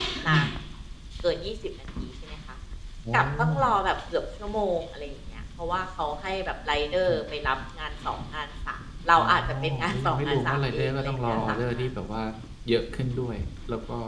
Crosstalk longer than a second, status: present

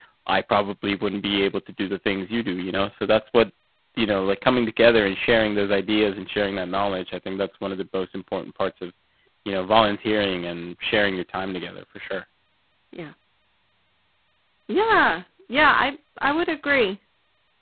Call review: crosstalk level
none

